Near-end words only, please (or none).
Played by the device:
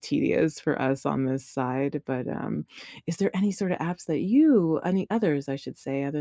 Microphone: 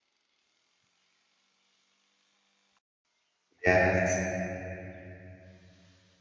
Yes.